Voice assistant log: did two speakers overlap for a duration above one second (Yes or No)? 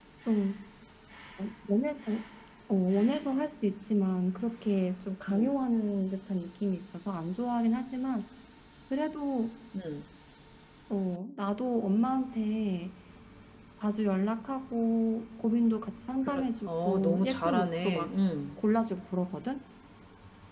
Yes